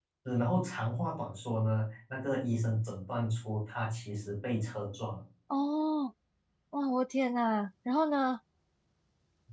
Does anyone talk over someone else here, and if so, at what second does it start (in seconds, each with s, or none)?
none